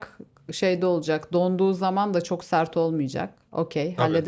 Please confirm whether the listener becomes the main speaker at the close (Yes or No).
Yes